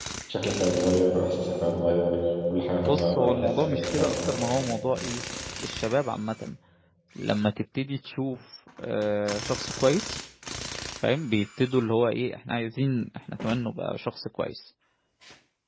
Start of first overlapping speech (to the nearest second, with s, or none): 3 s